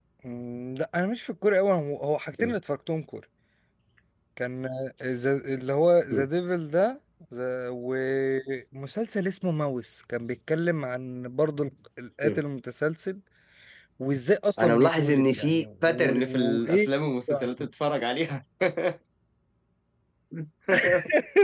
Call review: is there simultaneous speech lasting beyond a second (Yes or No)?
Yes